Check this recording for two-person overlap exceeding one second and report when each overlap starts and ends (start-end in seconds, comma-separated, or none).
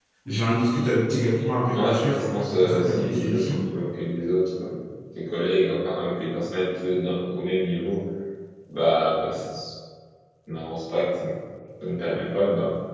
1.7-3.5